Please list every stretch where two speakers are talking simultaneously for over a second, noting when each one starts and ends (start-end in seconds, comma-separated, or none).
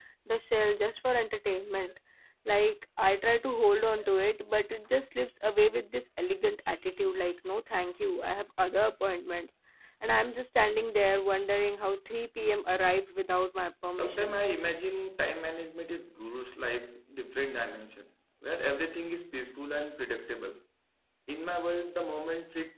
none